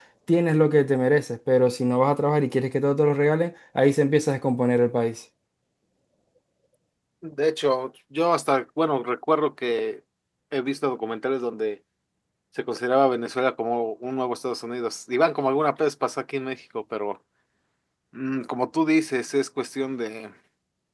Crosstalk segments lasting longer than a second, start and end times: none

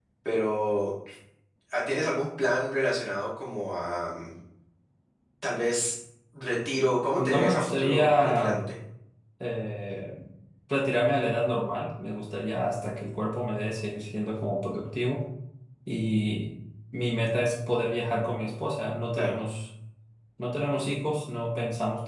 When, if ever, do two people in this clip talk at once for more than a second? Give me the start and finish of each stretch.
7.2-8.6

